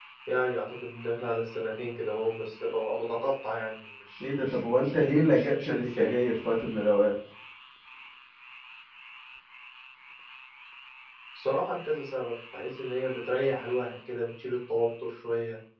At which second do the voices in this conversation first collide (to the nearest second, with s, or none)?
4 s